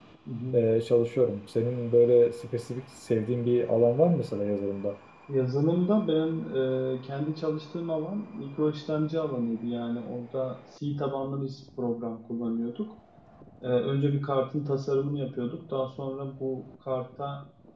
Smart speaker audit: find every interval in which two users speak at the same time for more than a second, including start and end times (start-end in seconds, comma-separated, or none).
none